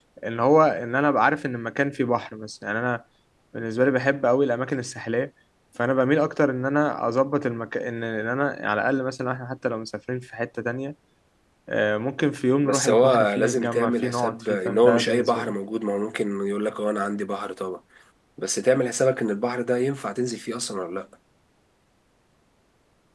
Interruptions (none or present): present